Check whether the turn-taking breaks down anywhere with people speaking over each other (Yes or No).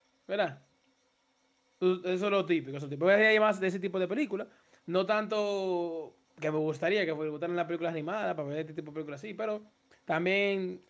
No